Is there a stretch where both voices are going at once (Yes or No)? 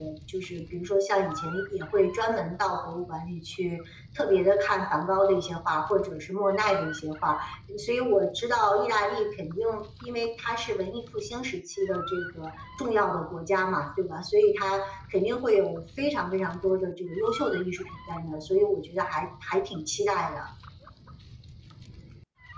No